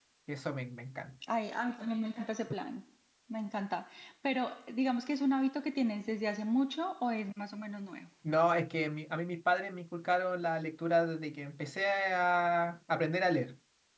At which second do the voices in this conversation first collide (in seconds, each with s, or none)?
none